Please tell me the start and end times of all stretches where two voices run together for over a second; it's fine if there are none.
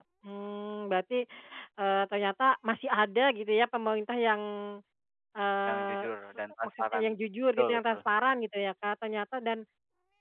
5.7-7.0

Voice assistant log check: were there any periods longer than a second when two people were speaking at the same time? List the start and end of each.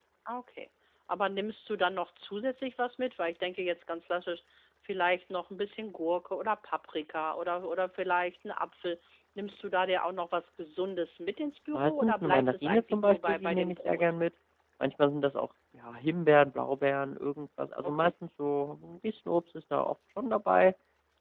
11.7-14.0

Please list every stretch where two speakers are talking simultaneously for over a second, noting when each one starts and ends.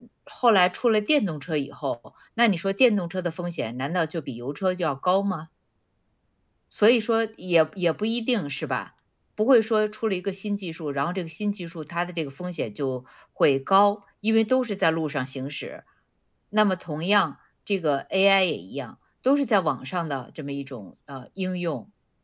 none

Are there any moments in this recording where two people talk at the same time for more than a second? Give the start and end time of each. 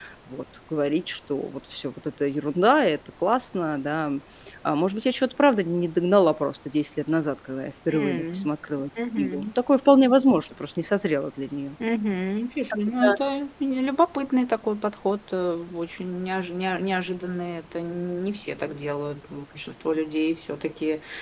none

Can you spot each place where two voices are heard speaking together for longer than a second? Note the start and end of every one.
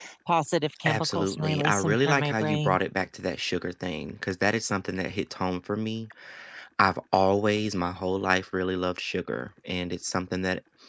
0.9-2.8

